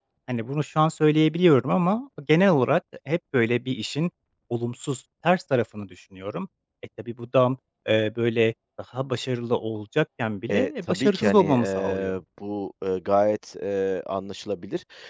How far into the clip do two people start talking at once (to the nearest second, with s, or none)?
10 s